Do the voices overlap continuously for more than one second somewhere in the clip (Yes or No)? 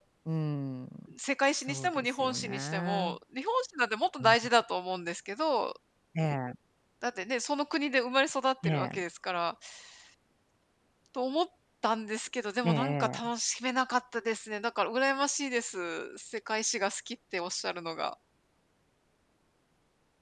Yes